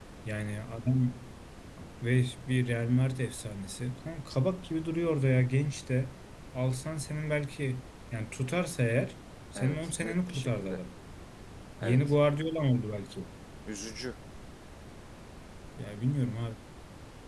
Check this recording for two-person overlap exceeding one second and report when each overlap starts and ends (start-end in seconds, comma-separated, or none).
9.6-10.8